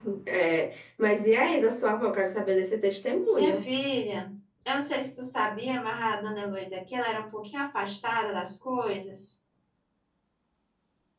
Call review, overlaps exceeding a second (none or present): none